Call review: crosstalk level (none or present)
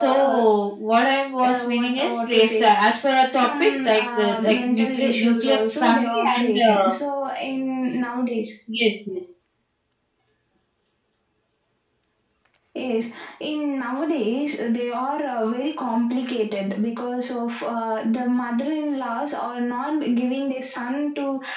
present